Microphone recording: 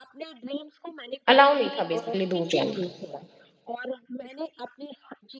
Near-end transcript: अलाउ नहीं था बेसिकली दूर जाना।

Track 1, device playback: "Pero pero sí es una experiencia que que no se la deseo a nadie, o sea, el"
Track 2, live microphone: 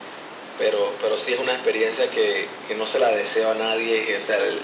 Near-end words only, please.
none

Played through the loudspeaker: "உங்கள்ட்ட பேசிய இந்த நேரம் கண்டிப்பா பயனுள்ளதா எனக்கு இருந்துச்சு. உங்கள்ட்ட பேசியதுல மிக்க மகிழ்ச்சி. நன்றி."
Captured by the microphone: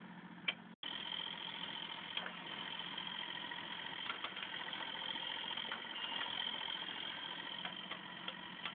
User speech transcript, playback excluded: none

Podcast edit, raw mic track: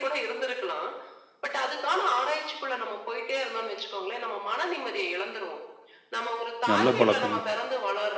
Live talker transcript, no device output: நல்ல பழக்கம்.

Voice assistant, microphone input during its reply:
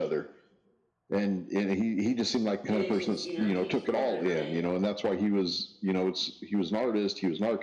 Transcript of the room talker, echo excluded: And it just, you know, keeps moving, right?

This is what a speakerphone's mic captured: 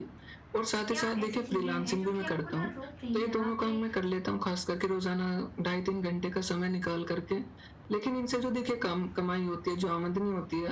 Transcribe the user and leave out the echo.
क्या ऐसी चीज़ें हैं जो कि आपको ना रोक रही हैं, आपके

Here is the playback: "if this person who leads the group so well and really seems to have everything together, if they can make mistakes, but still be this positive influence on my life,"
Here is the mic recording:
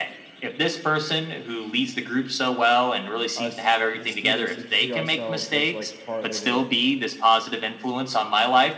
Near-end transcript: us, the students, to see ourselves as like part of a

